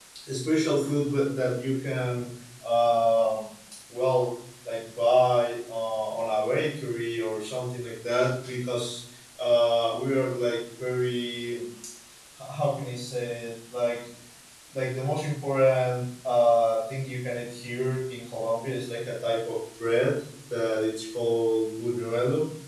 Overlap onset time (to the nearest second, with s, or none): none